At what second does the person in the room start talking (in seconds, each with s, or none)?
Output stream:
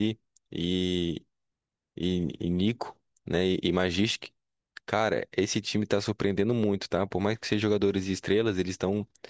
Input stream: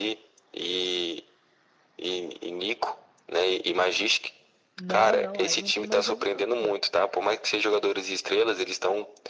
4.8 s